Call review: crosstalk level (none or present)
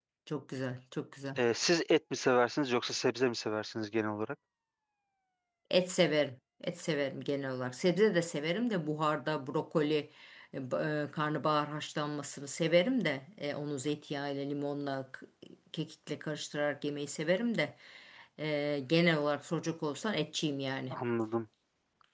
none